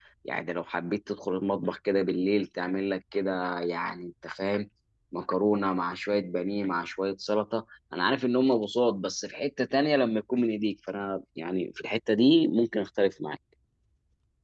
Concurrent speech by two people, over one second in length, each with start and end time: none

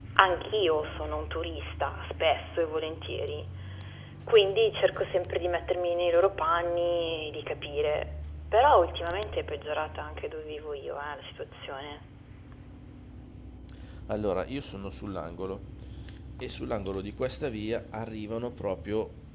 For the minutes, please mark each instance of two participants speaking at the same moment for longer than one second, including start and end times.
none

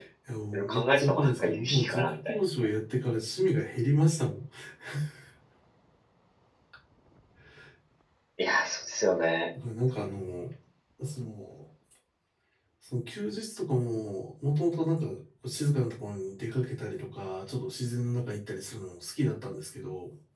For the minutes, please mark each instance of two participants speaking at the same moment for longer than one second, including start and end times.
0.5-2.4

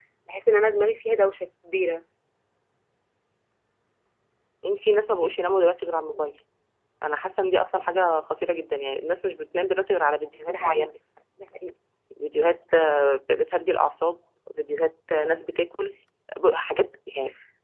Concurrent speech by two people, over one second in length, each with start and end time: none

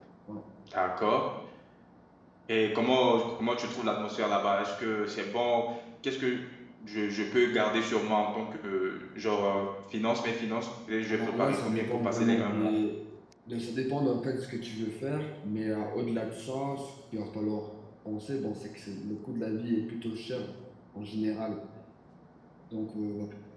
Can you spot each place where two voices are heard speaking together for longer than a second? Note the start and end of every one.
11.1-12.7

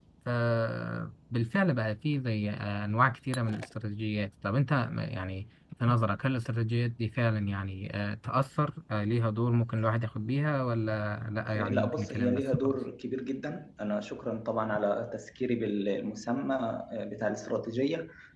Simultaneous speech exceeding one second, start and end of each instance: 11.6-12.8

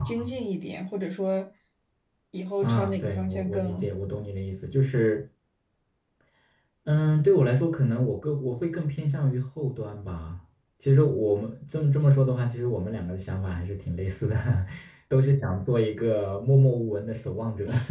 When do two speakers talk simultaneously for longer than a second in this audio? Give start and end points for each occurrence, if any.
2.6-3.9

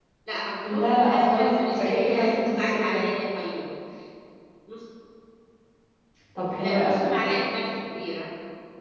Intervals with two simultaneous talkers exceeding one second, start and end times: 0.7-3.0

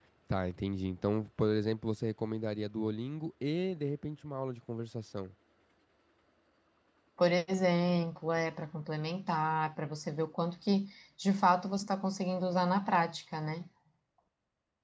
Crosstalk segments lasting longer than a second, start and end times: none

